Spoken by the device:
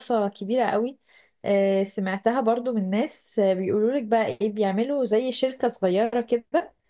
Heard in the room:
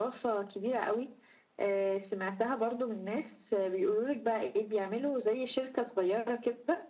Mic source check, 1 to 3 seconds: echo only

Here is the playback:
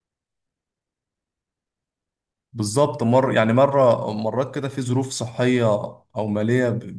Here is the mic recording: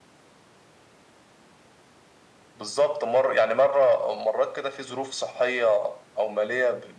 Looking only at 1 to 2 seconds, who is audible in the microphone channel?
neither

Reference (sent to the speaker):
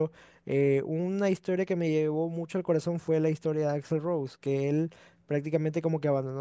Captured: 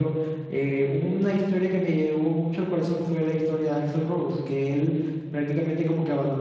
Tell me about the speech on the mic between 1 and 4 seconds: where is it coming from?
echo only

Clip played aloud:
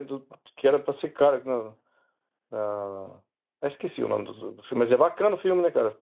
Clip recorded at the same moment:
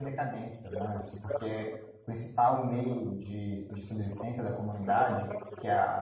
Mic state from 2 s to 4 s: both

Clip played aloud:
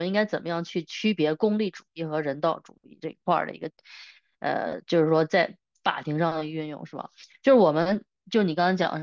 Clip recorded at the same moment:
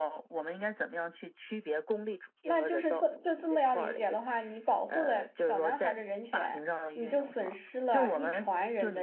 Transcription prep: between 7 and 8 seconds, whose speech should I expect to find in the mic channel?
both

